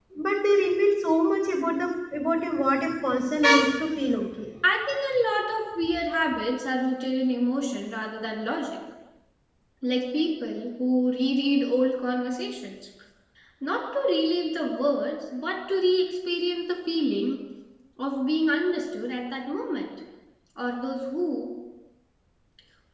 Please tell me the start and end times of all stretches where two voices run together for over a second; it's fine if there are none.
none

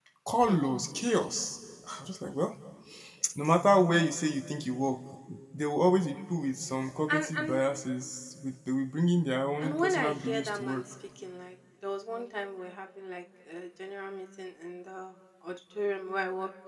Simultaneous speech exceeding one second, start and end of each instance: 9.6-10.8

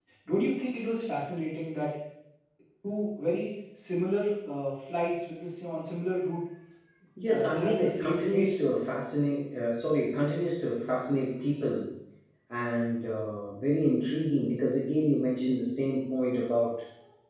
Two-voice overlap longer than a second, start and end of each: 7.3-8.5

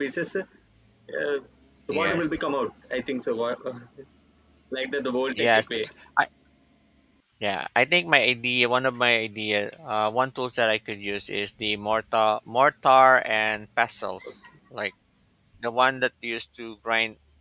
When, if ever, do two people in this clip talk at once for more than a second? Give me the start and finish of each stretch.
none

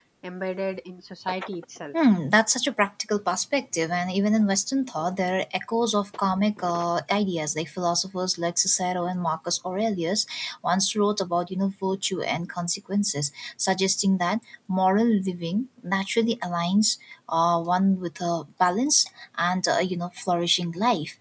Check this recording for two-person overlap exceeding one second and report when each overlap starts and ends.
none

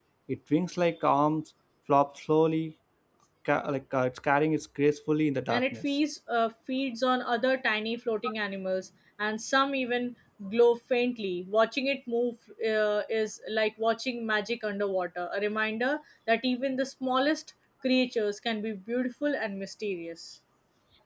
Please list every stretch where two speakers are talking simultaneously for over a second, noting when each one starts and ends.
none

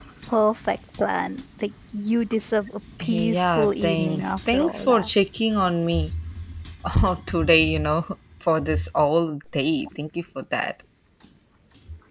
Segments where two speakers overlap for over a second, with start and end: 3.0-5.1

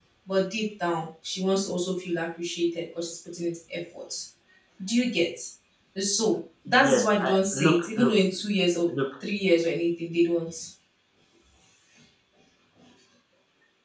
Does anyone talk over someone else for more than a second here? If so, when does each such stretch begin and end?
6.7-8.1

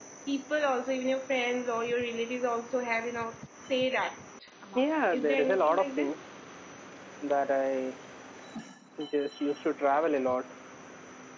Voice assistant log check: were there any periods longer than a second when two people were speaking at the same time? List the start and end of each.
4.8-6.1

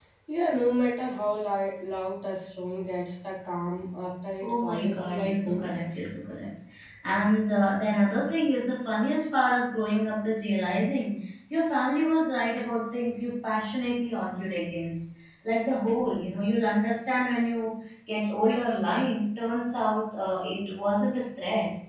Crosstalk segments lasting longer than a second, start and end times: 4.4-5.7

